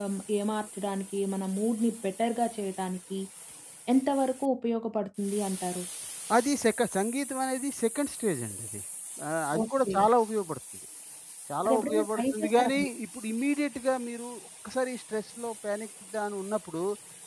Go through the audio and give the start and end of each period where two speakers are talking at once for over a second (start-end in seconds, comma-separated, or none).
11.7-12.9